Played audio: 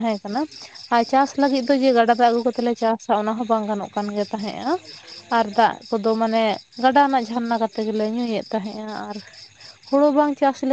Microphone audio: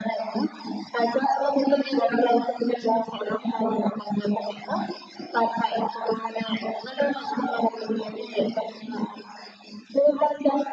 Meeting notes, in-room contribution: none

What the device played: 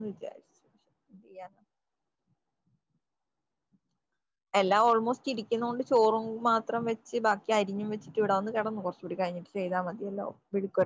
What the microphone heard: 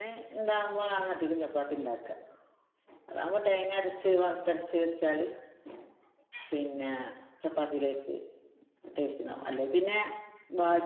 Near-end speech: present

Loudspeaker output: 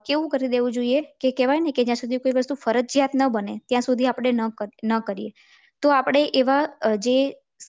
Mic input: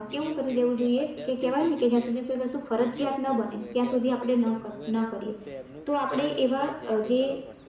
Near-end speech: present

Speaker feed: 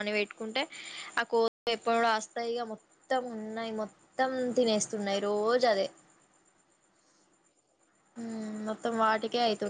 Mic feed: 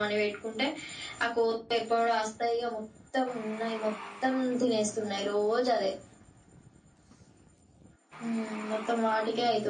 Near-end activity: none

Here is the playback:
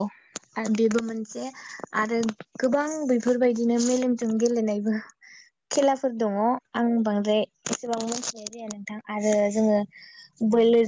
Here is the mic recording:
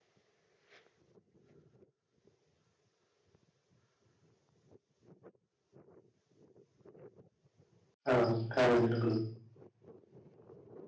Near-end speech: present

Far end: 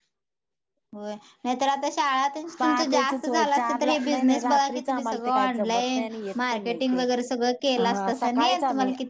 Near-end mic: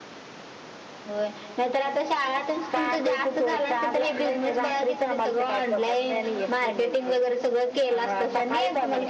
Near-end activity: none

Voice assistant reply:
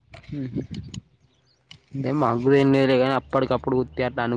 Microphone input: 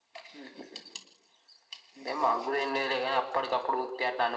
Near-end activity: none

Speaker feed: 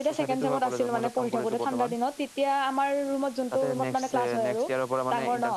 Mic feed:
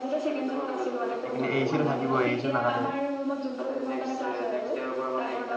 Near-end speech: present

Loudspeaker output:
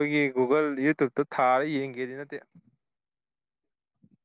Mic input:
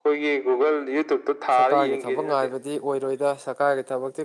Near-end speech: present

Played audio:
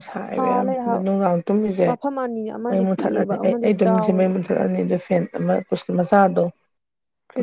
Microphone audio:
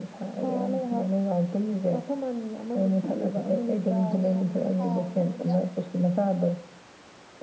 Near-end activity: present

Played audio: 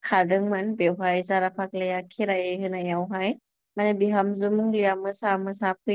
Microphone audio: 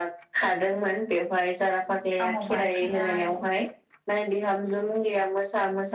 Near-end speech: present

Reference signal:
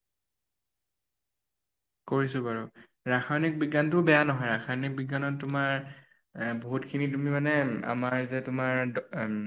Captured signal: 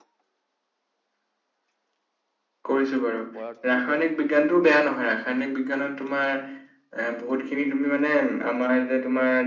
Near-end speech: present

